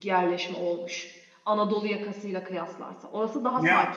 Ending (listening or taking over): taking over